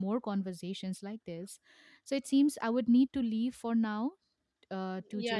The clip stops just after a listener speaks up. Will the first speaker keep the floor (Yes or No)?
No